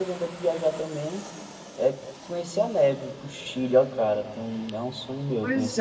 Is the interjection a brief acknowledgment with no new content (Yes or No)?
No